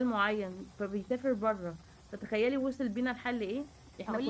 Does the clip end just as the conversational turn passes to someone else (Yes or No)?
Yes